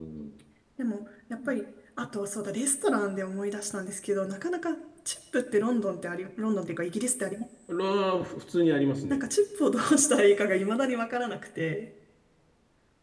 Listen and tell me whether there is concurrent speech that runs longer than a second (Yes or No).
No